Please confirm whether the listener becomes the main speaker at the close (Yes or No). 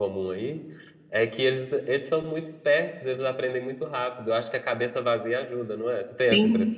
Yes